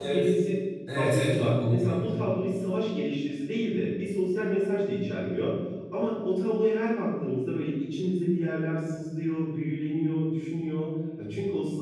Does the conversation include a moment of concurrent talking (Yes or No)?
Yes